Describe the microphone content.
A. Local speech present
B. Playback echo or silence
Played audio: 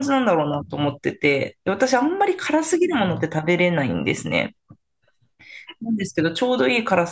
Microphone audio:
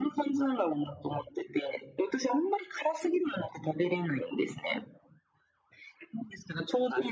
B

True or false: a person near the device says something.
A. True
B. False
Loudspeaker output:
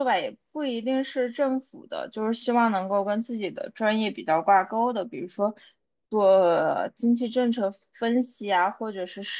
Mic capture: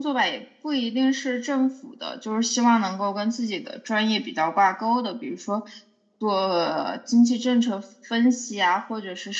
B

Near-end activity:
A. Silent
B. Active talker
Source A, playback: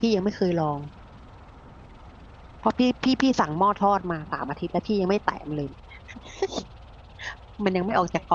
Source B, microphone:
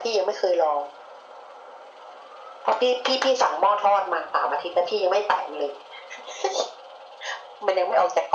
A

